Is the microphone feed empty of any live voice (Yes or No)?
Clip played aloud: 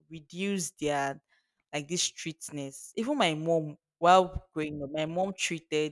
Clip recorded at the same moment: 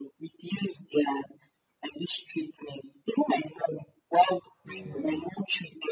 No